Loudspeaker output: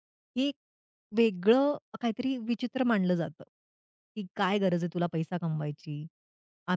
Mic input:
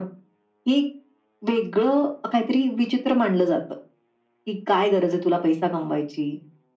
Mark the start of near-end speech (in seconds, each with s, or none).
none